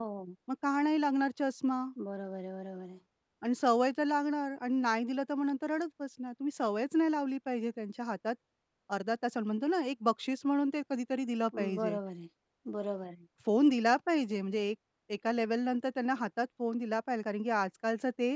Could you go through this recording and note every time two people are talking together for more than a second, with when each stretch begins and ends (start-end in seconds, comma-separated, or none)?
none